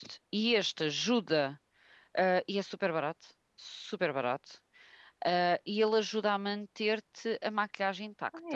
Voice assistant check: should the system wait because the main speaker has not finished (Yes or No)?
No